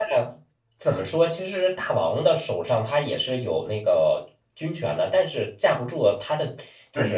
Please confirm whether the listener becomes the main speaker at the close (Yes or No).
Yes